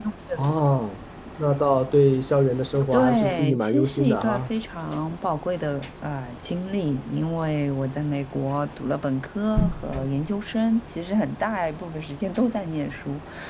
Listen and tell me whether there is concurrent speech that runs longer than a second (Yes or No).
Yes